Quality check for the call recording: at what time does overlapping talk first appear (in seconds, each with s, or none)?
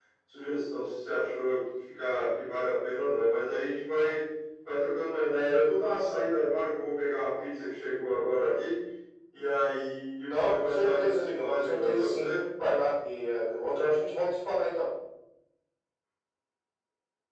10.3 s